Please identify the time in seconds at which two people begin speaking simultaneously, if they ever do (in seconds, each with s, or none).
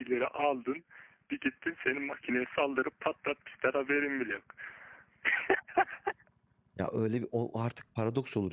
none